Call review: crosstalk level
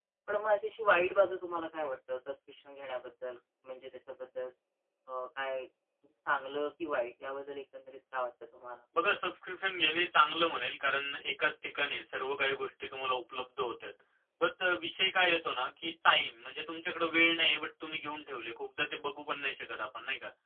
none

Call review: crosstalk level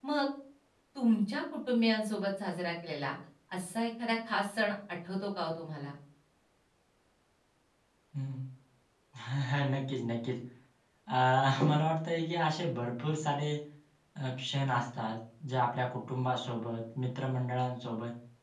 none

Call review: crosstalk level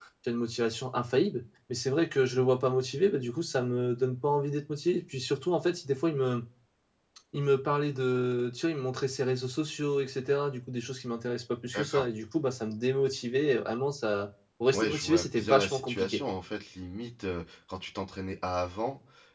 present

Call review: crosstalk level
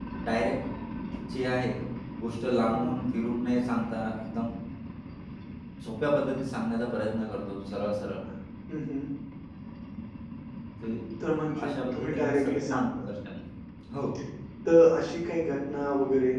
present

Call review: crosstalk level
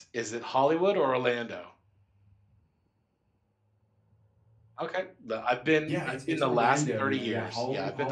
present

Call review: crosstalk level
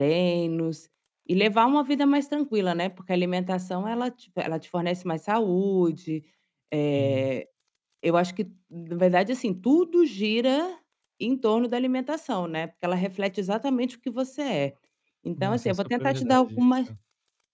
present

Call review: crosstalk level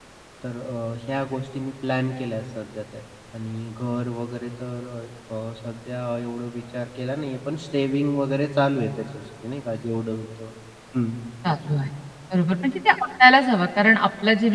none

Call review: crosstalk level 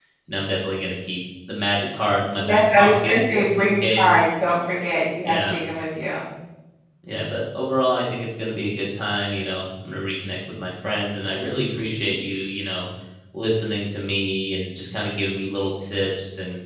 present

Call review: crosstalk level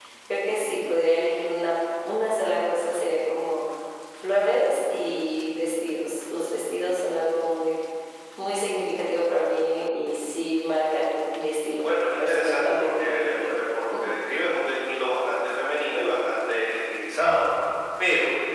present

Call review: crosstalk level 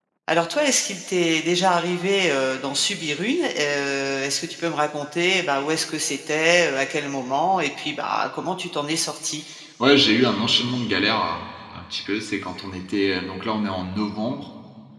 none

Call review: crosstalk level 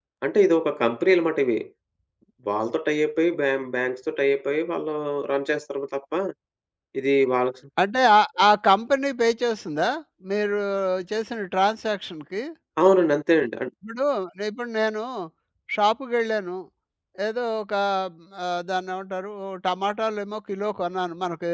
none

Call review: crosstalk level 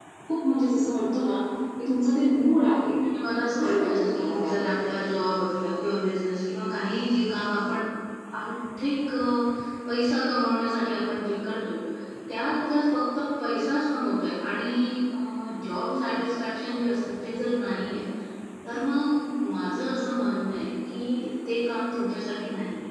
present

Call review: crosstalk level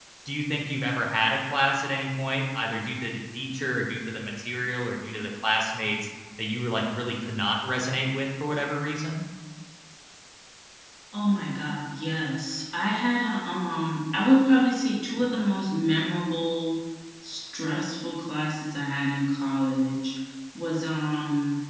none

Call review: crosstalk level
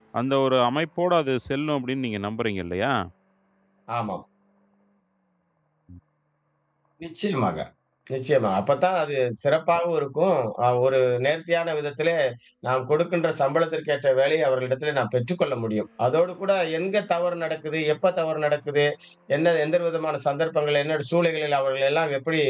none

